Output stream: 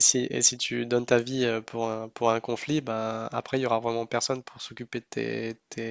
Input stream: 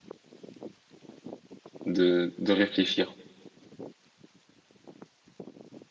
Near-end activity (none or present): present